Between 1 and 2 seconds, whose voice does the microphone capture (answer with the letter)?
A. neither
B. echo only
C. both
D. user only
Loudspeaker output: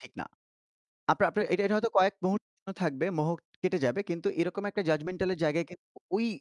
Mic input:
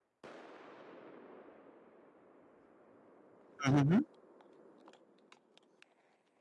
A